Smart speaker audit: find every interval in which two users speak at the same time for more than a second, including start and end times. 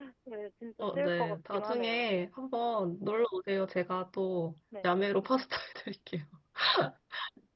0.8-2.1

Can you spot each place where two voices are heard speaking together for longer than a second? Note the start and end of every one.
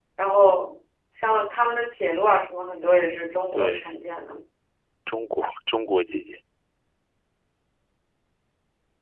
none

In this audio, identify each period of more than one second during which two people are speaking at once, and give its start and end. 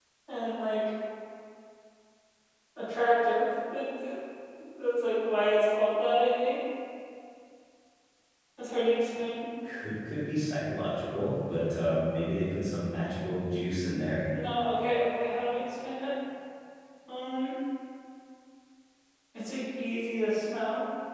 none

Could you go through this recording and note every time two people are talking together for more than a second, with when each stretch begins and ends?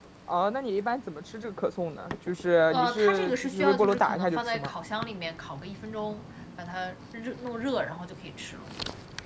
2.7-4.7

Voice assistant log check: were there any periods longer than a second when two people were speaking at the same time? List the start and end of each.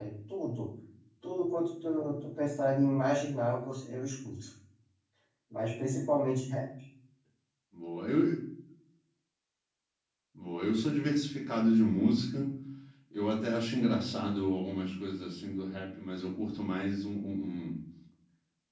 none

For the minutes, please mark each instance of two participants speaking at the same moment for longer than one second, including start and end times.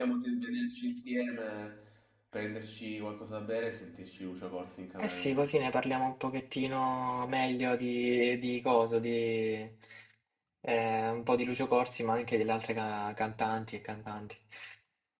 none

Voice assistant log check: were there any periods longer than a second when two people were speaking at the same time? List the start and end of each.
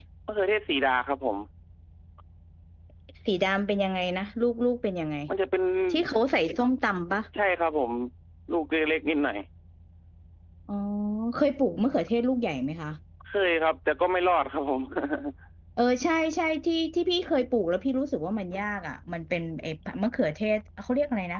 none

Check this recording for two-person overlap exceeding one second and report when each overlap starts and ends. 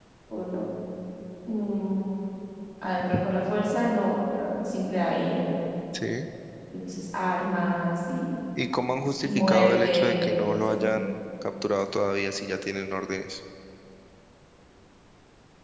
9.2-10.9

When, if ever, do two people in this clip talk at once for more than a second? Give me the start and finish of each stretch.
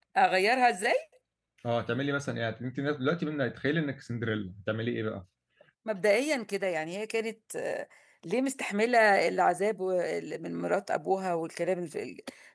none

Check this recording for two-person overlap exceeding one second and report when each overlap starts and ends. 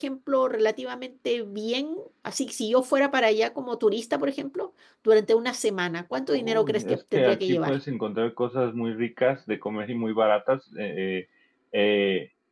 6.3-7.8

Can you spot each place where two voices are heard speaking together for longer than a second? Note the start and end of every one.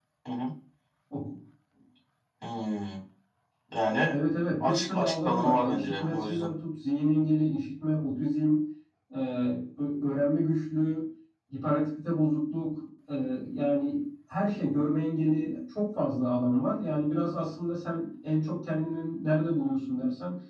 4.6-6.5

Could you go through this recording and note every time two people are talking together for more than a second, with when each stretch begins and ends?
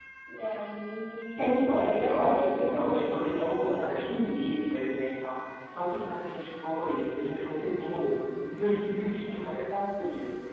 1.4-4.0

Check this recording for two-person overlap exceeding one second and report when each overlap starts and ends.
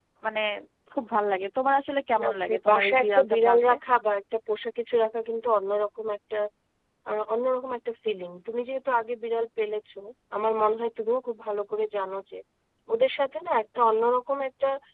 2.2-3.7

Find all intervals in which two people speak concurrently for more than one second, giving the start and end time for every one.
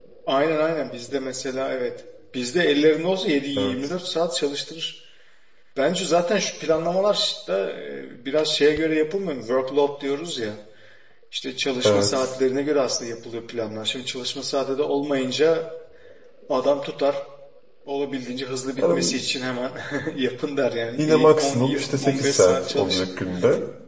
21.0-23.0

